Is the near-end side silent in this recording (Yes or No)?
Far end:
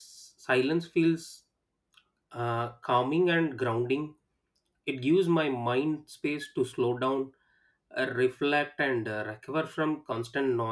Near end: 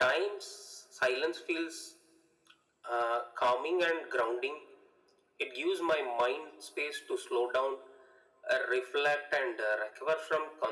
Yes